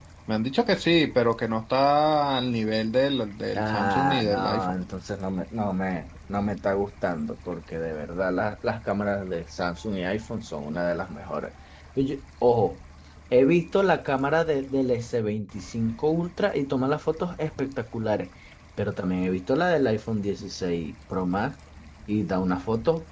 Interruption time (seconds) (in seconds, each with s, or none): 3.5 s